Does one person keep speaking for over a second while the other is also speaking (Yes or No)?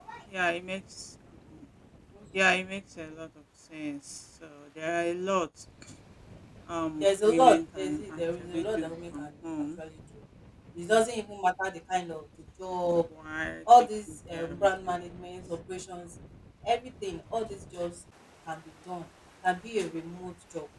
Yes